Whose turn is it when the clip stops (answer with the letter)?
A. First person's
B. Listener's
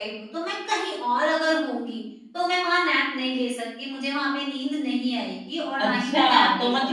B